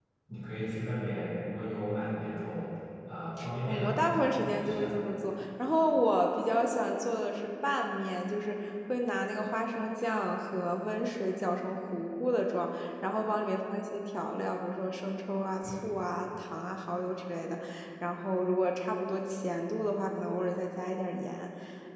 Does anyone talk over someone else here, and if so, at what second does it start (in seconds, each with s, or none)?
3.7 s